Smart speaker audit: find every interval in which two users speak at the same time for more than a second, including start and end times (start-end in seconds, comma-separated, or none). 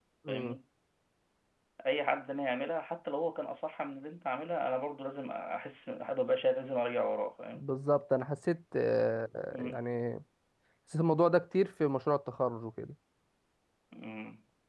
none